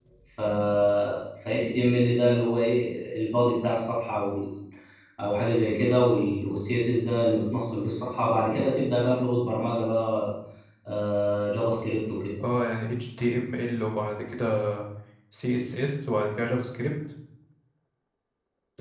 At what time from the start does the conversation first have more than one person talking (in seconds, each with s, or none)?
none